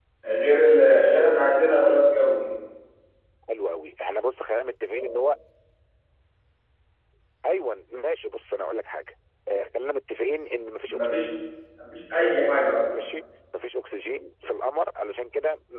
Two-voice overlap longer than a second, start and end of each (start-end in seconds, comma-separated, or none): none